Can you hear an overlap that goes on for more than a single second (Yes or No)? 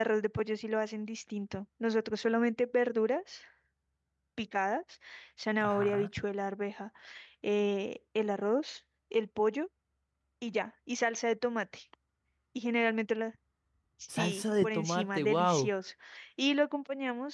Yes